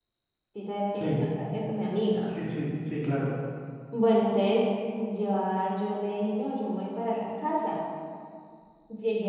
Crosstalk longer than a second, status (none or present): none